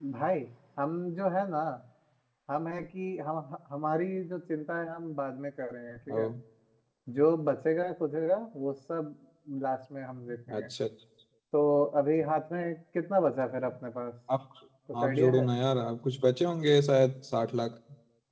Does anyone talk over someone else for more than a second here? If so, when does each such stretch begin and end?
none

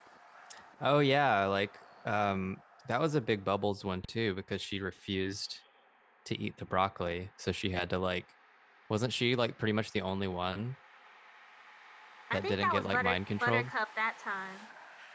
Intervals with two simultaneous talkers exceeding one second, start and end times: 12.3-13.7

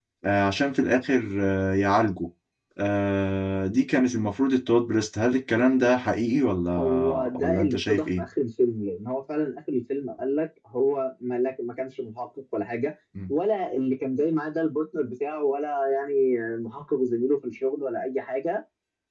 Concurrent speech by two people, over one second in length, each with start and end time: 6.8-8.2

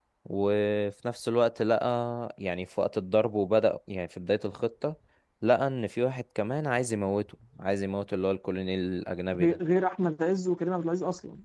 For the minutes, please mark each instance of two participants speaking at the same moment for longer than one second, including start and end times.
none

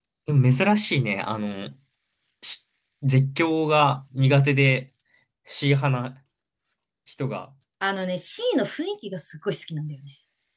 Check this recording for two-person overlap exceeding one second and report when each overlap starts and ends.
none

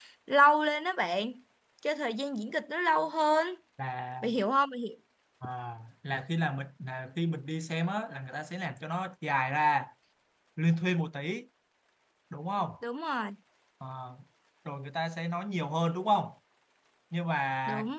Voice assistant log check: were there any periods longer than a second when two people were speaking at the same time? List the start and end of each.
none

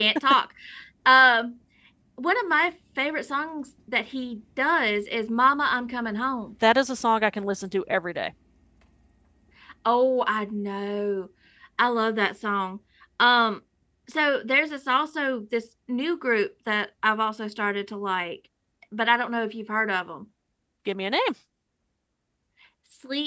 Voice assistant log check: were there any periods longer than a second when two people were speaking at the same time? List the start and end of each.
none

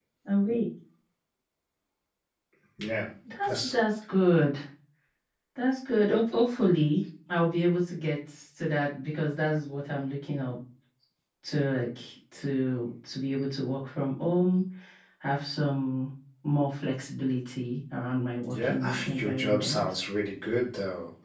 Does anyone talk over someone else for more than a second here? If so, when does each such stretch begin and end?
18.5-19.8

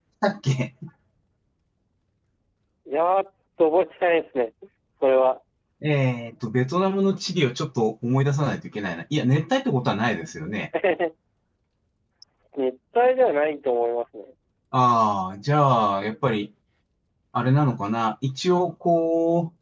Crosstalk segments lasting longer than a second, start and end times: none

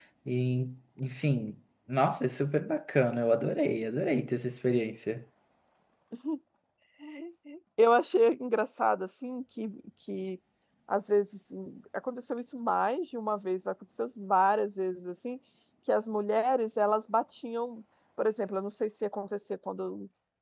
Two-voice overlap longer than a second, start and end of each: none

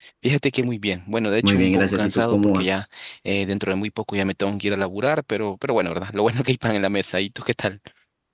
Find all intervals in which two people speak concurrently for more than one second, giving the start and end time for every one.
1.4-2.8

